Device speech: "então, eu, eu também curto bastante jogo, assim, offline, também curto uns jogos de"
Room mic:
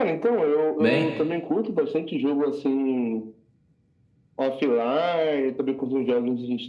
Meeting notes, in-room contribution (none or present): present